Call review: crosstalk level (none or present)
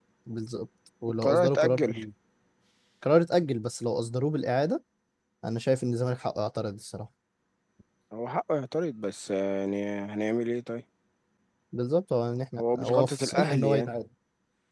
present